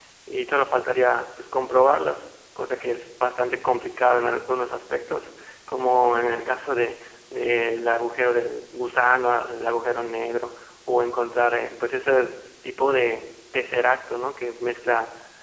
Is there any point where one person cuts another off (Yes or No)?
No